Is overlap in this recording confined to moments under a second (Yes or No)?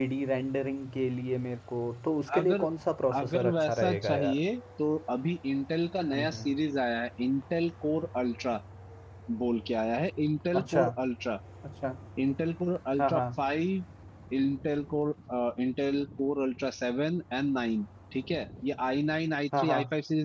No